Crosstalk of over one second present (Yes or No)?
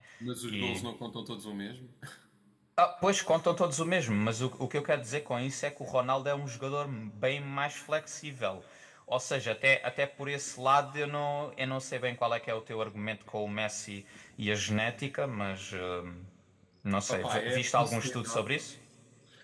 Yes